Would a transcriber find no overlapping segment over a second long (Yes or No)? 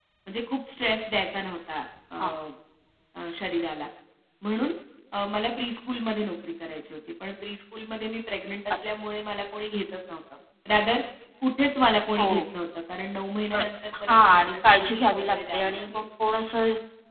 No